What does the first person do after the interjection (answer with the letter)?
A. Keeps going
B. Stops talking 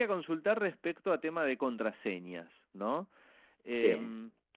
A